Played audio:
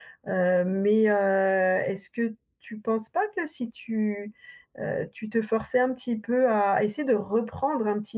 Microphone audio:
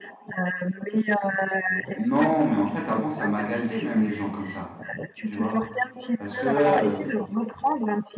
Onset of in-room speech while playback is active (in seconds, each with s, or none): 1.9 s